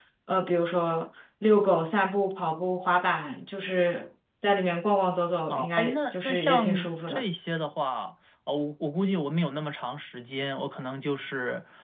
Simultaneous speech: Yes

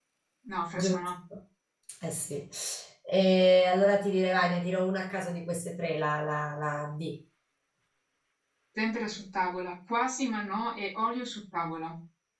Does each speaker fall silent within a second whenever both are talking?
Yes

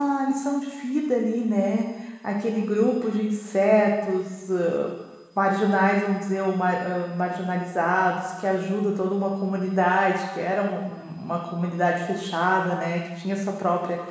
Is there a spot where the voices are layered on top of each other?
No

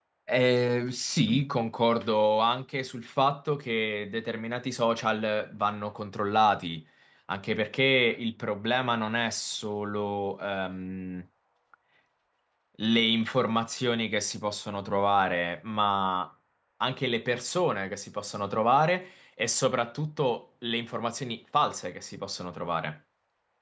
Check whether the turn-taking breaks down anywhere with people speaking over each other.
No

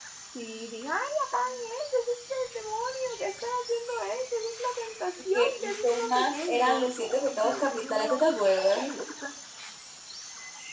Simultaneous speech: Yes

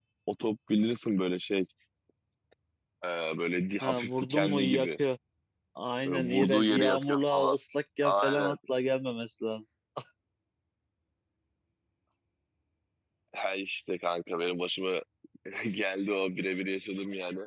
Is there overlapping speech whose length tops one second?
Yes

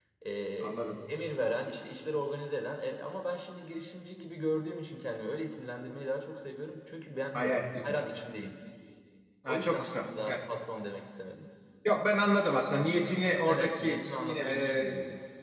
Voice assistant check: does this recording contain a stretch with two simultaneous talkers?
Yes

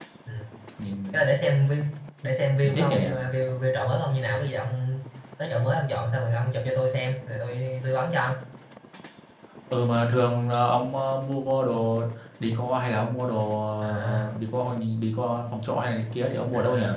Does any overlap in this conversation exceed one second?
No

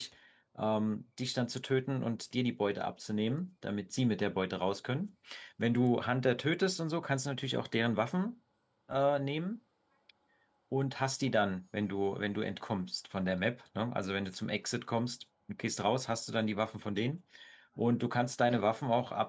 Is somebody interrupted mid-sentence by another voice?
No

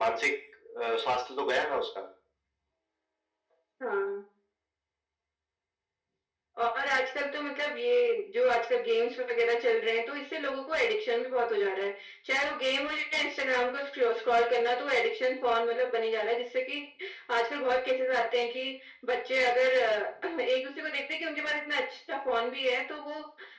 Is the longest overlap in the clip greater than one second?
No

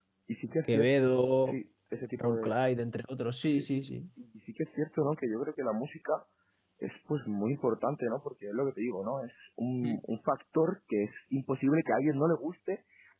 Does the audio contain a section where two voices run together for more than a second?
No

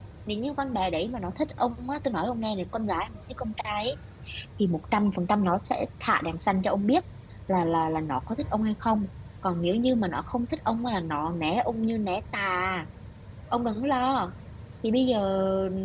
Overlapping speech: No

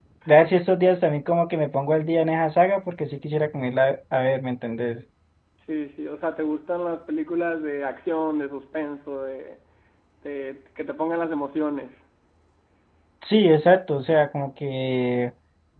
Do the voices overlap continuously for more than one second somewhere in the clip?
No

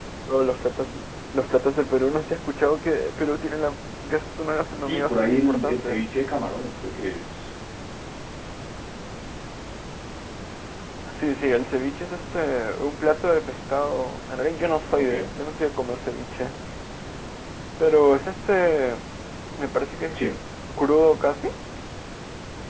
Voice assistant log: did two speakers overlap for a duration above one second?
Yes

